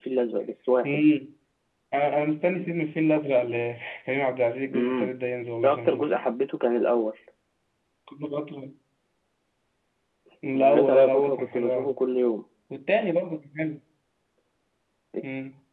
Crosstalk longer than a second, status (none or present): present